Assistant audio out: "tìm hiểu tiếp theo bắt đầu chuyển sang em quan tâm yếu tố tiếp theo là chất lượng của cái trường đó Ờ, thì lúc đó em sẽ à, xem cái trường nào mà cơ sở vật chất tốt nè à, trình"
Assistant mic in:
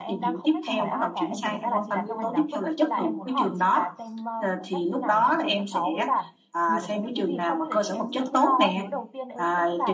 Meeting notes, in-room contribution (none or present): present